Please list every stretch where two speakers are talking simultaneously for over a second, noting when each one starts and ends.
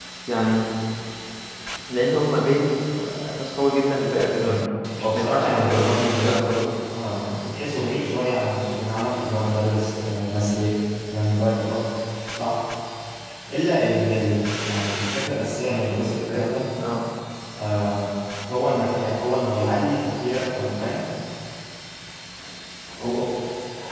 5.0-6.4

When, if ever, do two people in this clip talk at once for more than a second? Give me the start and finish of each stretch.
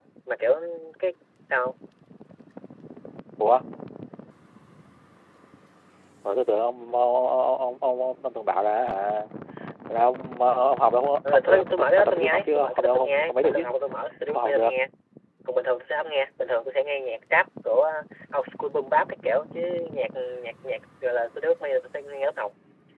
11.3-13.6

